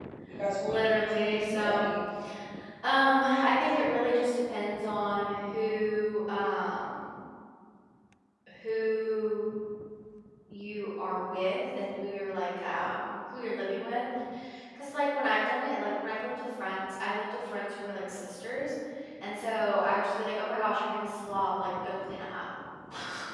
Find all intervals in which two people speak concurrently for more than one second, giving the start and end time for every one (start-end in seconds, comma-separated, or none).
0.6-1.9